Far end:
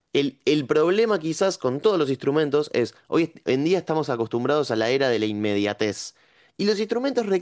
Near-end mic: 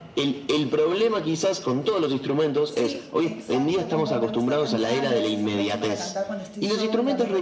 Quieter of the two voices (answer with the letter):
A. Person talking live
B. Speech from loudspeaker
A